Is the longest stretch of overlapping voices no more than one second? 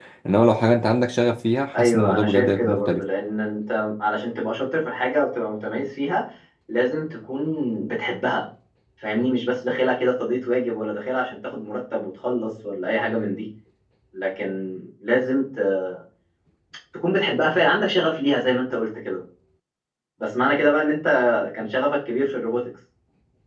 No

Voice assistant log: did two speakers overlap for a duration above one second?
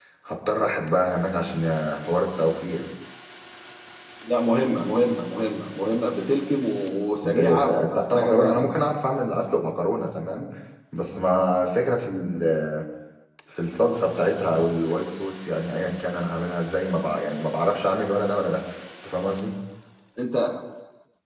Yes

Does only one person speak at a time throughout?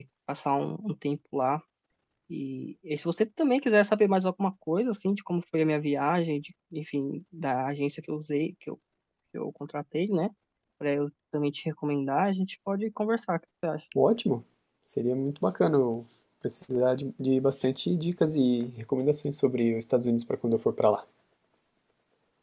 Yes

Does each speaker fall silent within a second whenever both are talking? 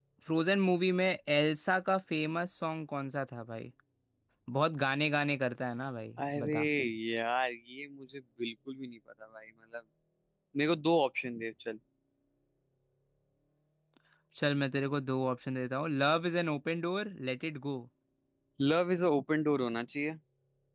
Yes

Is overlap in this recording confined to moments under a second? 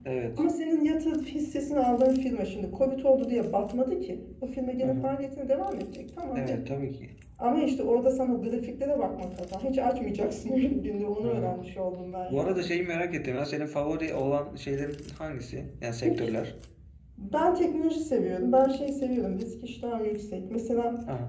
Yes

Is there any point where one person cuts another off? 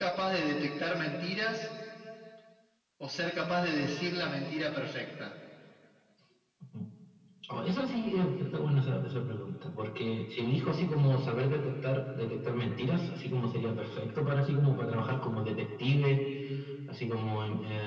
No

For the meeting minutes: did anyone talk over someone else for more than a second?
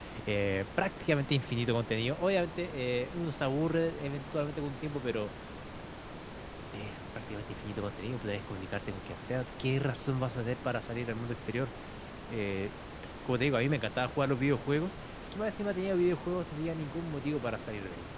No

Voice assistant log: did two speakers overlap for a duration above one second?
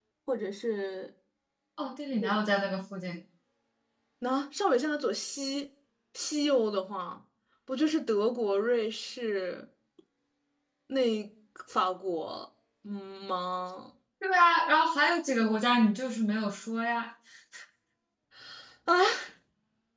No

